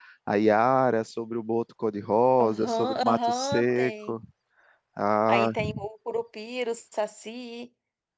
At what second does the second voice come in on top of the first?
2 s

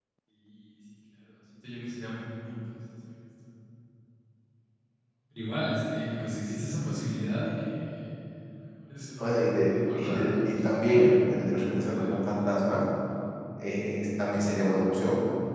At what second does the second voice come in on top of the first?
9 s

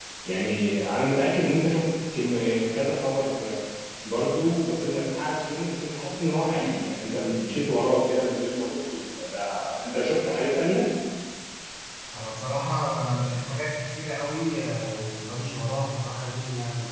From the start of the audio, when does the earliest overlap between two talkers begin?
none

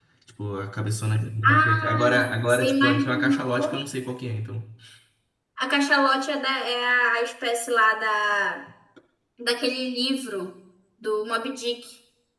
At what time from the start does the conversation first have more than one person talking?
1 s

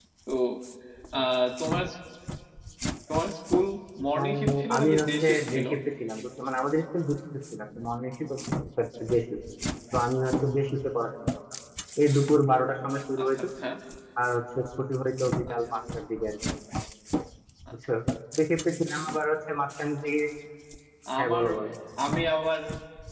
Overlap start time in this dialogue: 4 s

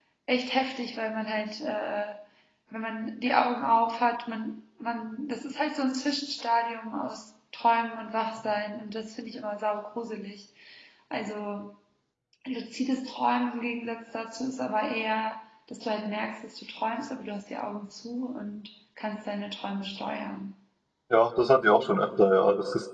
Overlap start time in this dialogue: none

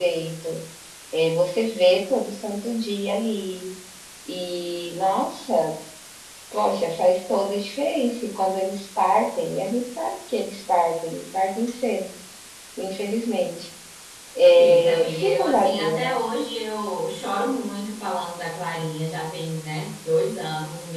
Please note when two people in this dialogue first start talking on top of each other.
15 s

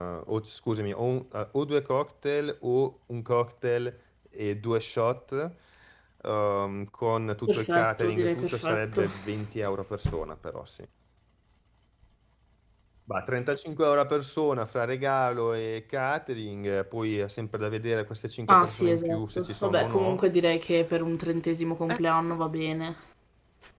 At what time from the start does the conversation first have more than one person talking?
7 s

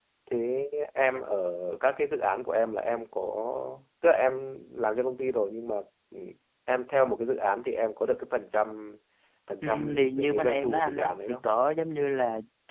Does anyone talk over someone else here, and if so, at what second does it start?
10 s

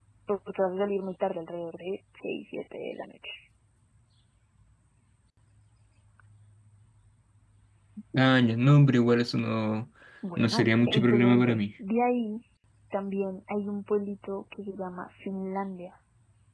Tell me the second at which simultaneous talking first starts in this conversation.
10 s

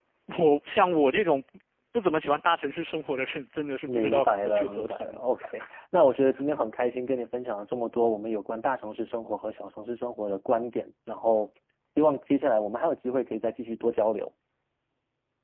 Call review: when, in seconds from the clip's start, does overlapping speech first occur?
4 s

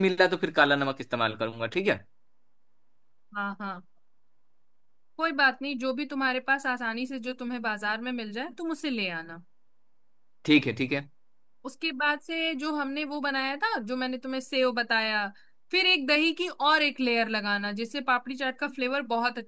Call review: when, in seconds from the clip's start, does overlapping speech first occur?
none

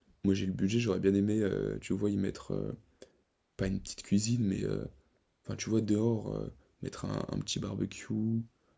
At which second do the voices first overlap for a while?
none

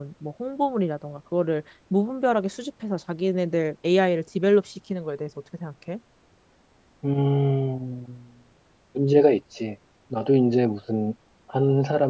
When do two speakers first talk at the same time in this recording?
none

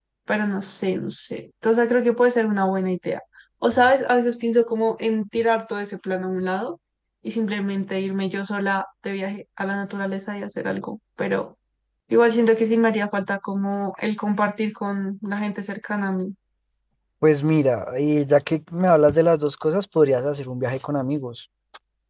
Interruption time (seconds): none

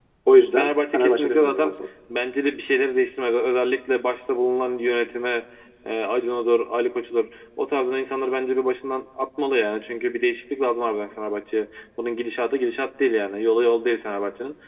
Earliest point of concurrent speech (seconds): 1 s

